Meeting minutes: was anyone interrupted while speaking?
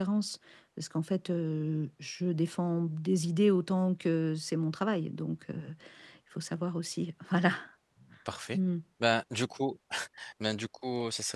No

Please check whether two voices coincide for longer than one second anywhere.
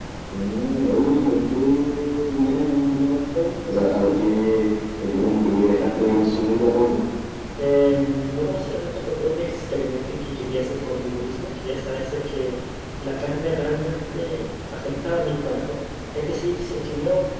No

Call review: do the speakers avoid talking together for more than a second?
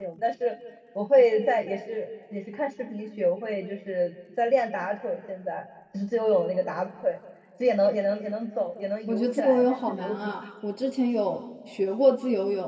No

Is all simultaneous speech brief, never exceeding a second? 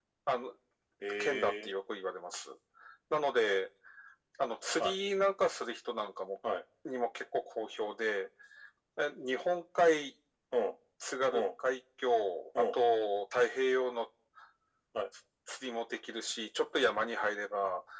Yes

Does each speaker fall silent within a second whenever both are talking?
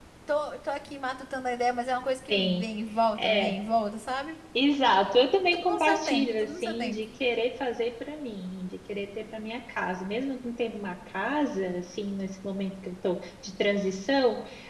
No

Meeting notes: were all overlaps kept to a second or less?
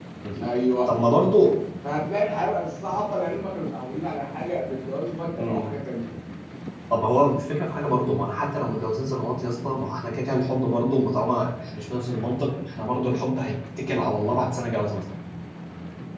Yes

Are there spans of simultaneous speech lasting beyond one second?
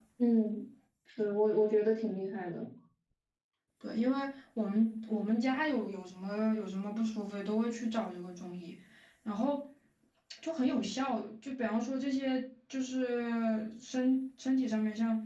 No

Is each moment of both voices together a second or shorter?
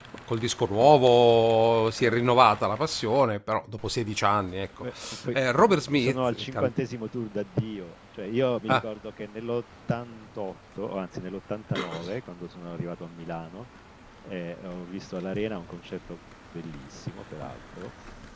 No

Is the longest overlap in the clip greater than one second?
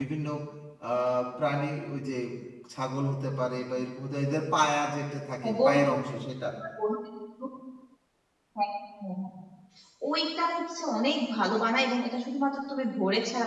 No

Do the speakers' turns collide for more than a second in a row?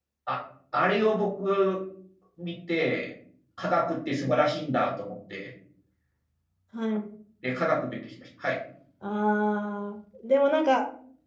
No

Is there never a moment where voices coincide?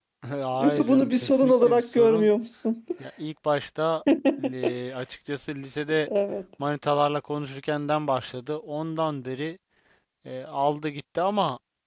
No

